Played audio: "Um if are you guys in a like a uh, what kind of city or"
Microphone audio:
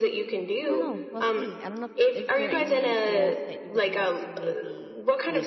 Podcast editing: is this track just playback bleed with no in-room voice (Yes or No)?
No